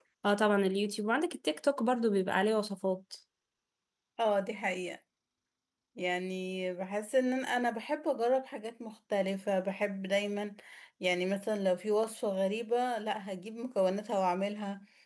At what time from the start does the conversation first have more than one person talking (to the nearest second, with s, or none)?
none